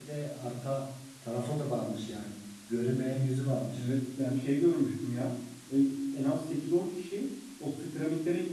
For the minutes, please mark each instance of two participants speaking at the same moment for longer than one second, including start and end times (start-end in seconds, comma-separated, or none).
none